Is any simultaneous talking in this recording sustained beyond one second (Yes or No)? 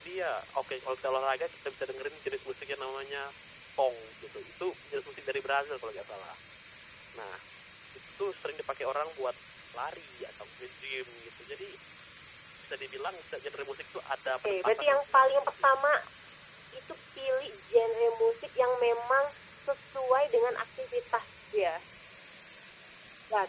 Yes